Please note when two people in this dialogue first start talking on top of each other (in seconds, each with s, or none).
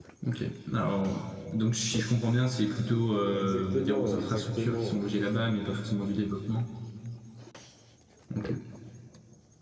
3.3 s